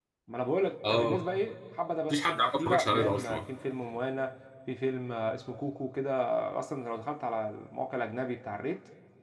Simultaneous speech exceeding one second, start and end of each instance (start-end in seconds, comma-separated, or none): 2.1-3.4